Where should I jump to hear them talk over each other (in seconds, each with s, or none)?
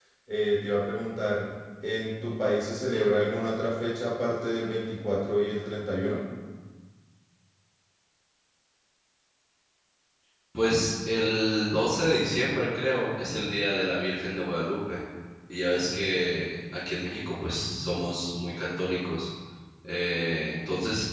none